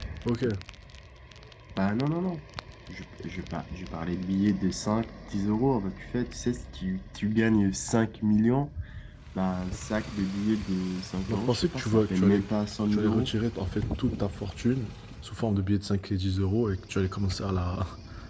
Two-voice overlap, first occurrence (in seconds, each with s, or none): 11.3 s